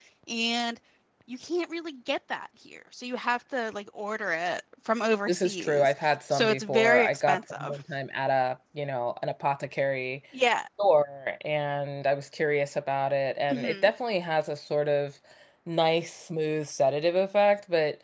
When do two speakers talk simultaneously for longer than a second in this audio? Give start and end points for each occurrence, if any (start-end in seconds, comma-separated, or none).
5.3-7.8